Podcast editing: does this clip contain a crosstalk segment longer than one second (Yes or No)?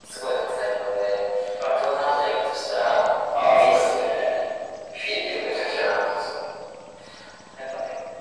Yes